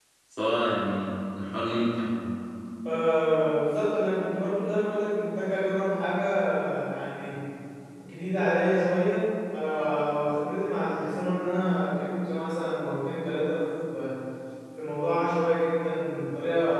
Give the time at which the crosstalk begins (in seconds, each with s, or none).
none